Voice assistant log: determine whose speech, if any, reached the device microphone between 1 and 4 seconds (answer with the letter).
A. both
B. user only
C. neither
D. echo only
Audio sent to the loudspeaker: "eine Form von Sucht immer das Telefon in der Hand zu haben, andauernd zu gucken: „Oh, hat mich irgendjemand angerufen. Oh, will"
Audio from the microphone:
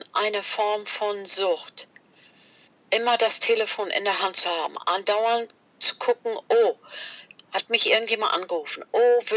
D